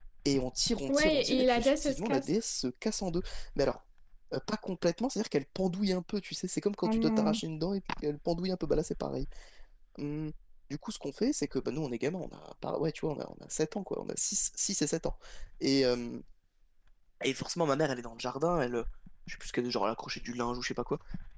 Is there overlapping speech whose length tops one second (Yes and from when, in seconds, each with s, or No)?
Yes, from 0.9 s